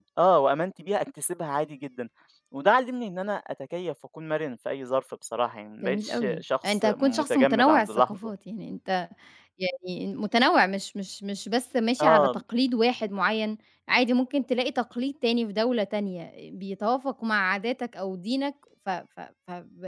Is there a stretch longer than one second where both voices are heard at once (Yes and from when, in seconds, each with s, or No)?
Yes, from 5.8 s